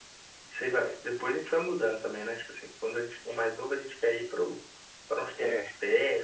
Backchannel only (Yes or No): Yes